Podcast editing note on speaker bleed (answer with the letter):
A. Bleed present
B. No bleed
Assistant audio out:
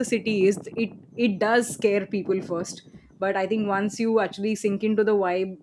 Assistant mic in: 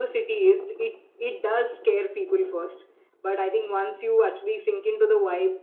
A